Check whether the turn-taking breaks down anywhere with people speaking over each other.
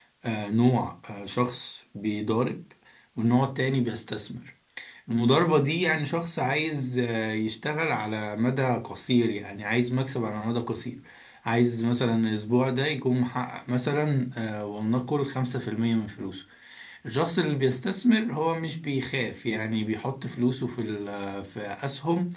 No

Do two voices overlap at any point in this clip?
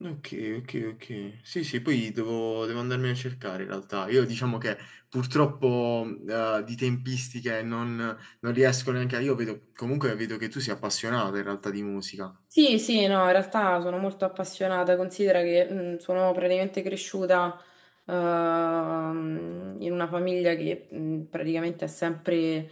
No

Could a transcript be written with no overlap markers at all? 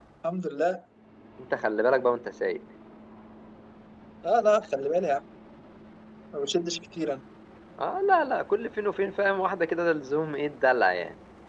Yes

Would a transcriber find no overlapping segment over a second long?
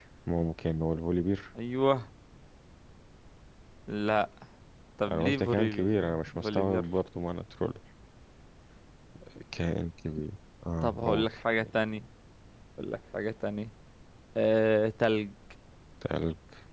No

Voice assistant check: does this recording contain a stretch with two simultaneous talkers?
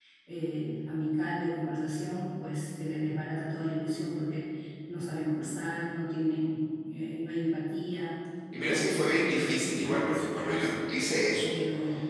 Yes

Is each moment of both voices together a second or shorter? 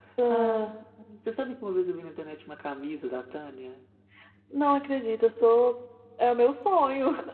Yes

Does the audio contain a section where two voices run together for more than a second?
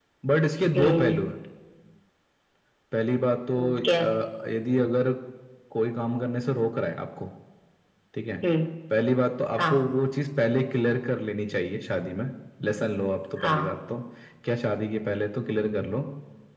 No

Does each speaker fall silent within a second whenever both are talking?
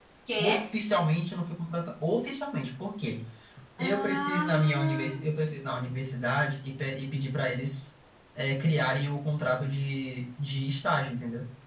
No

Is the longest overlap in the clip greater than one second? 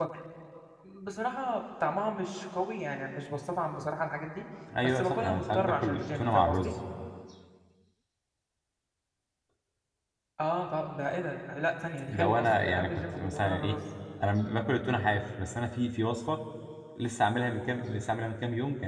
Yes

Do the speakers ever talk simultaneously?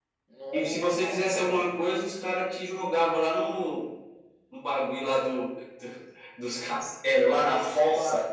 Yes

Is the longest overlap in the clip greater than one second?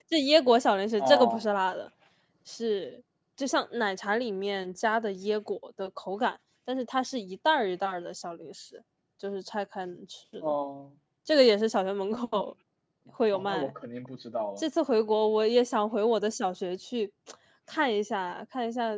No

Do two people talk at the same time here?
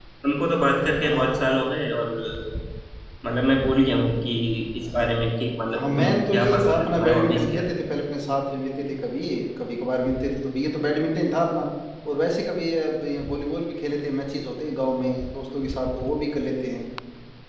Yes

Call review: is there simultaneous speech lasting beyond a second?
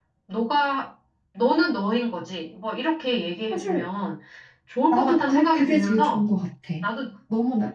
Yes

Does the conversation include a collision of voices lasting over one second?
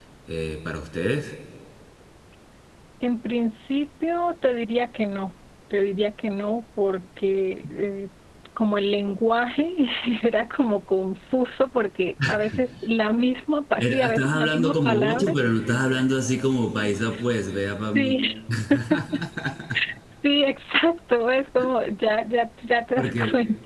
Yes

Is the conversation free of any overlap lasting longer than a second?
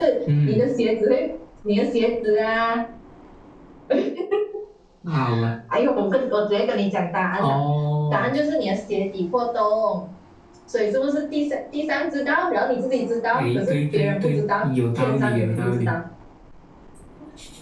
No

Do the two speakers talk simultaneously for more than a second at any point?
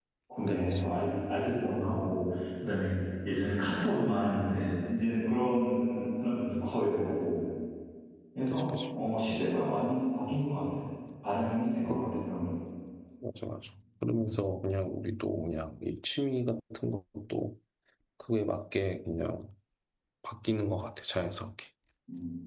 No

